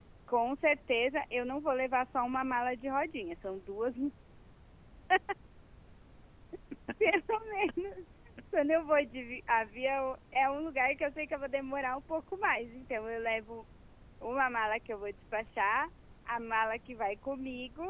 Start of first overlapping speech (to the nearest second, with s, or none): none